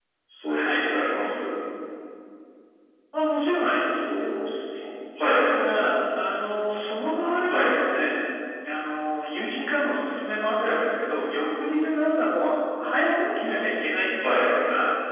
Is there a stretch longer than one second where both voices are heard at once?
No

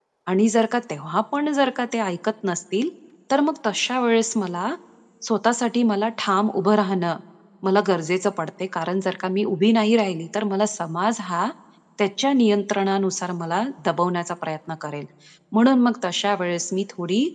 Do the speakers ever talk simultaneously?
No

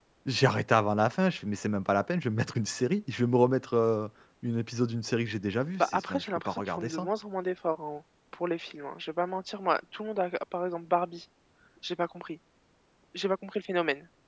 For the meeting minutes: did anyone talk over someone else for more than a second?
Yes, from 5.8 s

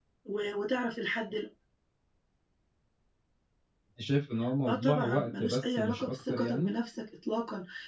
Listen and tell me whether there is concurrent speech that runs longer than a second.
Yes, from 4.7 s

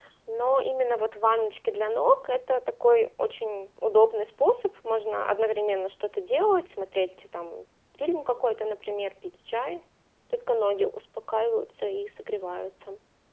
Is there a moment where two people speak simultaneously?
No

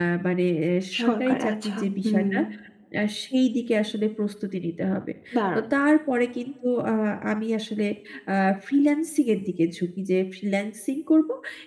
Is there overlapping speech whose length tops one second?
Yes, from 1.0 s

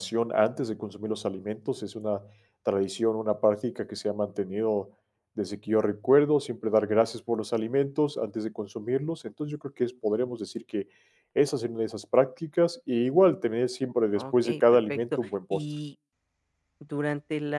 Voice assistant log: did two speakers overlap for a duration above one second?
Yes, from 14.2 s

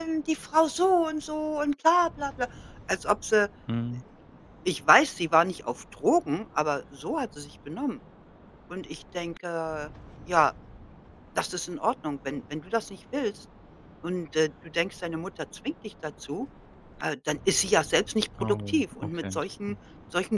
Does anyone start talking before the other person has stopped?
Yes, from 18.4 s

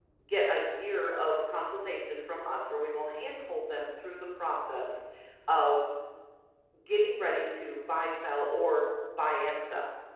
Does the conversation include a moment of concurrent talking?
No

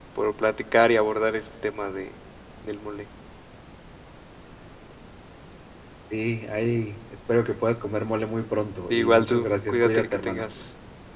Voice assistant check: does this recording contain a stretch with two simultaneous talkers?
Yes, from 8.9 s

